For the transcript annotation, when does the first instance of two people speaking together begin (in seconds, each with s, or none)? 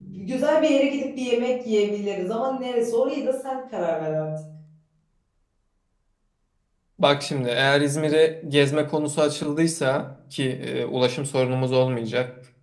none